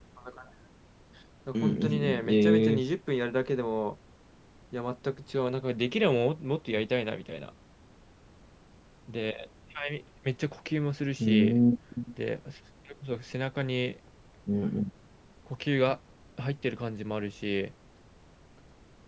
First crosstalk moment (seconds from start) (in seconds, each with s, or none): 1.5 s